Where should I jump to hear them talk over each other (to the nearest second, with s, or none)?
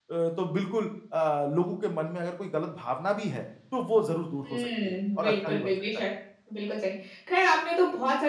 4 s